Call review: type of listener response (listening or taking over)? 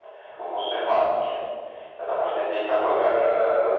listening